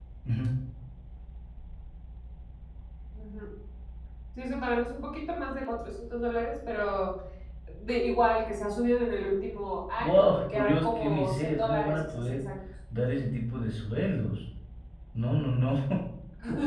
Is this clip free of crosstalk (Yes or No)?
No